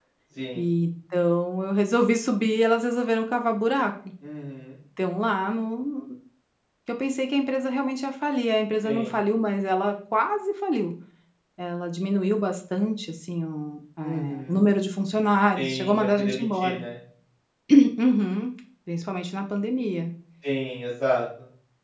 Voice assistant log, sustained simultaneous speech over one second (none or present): present